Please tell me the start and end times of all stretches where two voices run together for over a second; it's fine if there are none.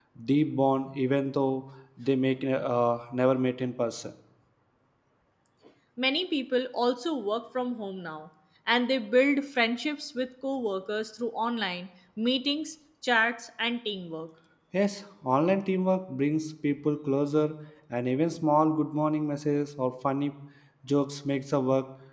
none

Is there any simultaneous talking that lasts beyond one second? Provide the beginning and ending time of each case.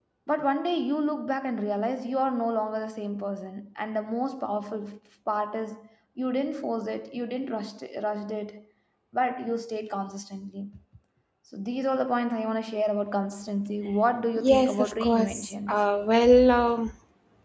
14.4-15.8

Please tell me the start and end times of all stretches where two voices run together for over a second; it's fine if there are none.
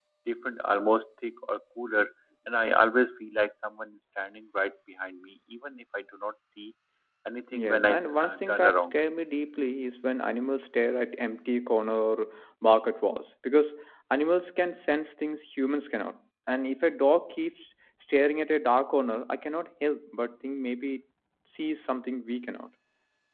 7.5-8.9

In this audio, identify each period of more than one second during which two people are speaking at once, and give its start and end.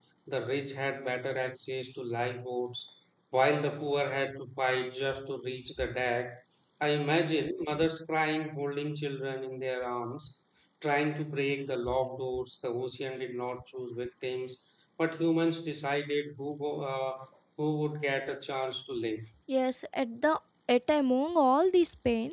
none

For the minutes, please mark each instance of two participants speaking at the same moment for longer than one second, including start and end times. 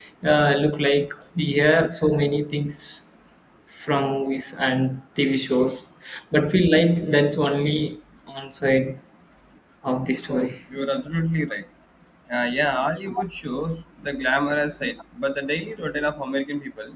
none

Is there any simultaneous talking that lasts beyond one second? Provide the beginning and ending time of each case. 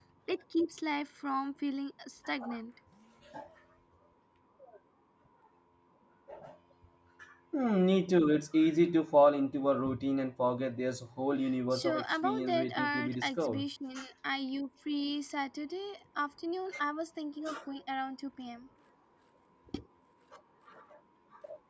11.7-13.6

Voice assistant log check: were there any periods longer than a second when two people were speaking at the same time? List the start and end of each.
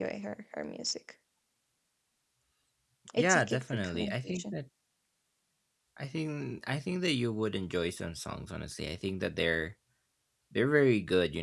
3.2-4.5

